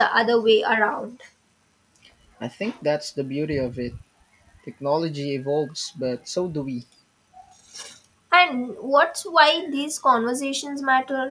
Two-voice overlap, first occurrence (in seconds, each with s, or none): none